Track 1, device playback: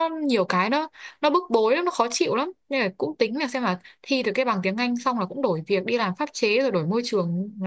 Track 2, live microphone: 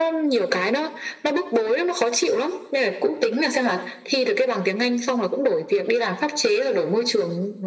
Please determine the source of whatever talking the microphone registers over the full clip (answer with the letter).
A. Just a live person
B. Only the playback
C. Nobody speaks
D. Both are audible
B